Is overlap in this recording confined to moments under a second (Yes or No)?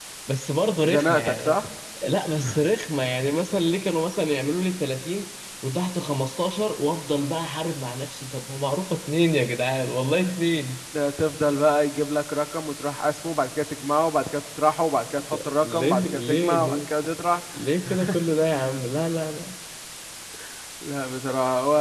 No